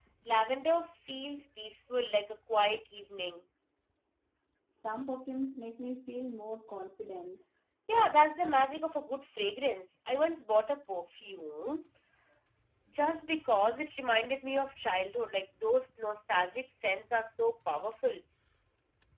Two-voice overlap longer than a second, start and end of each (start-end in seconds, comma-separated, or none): none